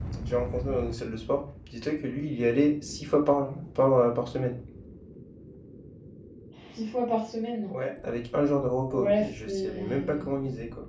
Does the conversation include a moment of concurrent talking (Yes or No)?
Yes